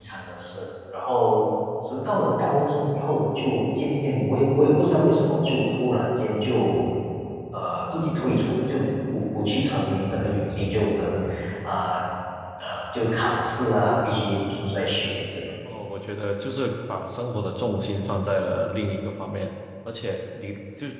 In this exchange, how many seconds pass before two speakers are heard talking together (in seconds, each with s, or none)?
none